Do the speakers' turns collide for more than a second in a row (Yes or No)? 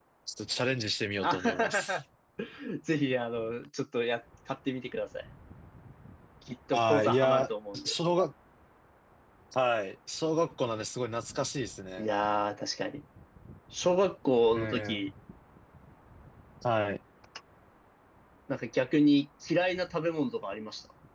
Yes